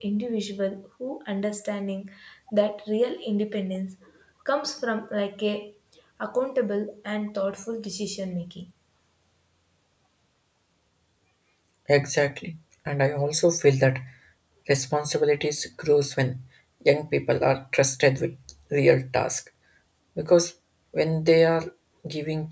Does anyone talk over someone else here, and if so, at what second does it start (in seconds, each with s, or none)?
none